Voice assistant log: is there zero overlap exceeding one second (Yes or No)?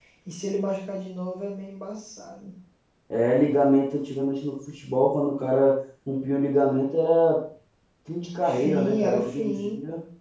No